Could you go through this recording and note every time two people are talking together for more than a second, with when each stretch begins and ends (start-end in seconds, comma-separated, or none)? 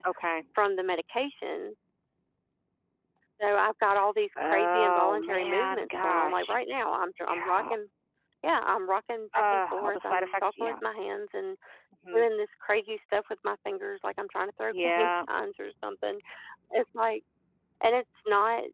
4.4-6.6, 9.3-10.7